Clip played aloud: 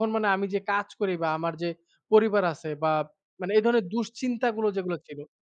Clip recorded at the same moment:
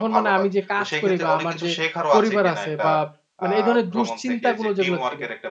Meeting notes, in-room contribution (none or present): present